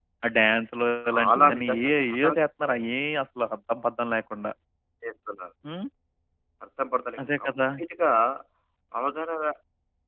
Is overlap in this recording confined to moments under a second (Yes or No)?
No